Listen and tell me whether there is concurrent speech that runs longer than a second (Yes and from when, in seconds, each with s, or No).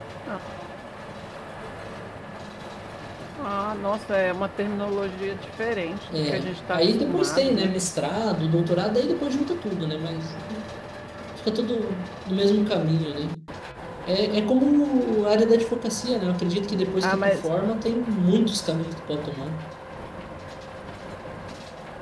Yes, from 6.1 s